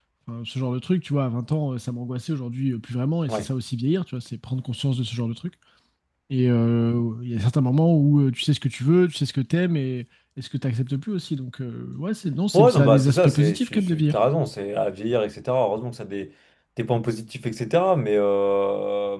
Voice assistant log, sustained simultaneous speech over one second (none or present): present